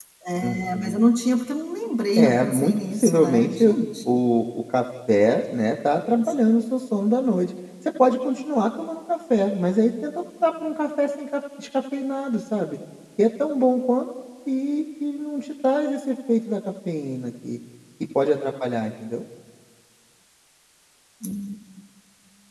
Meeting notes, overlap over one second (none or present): present